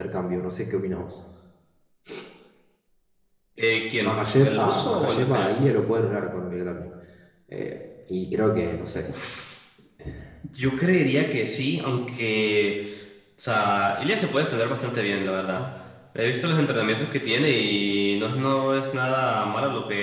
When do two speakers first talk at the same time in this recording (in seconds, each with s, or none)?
4.0 s